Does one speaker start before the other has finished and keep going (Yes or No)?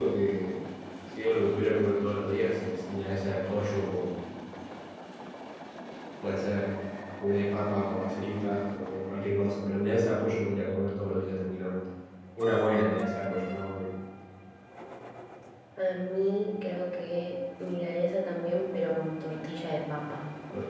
No